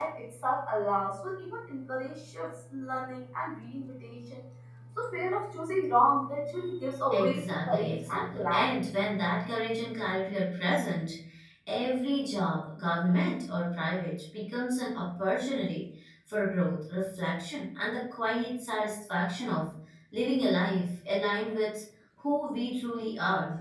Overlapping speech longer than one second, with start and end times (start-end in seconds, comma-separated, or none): 7.1-8.8